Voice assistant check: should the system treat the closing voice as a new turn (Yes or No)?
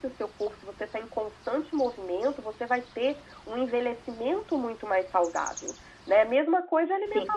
No